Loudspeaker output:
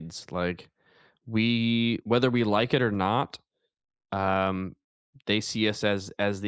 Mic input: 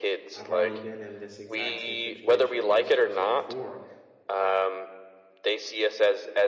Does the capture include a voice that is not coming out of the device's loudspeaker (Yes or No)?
Yes